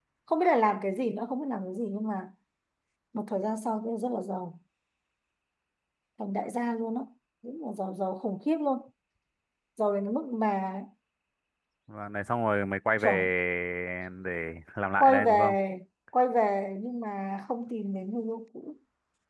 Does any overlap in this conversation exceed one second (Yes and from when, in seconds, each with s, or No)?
No